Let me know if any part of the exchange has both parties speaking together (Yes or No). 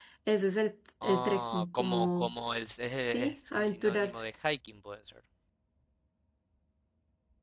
Yes